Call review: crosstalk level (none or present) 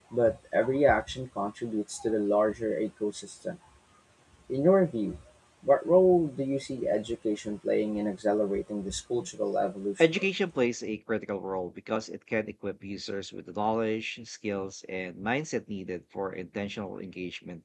none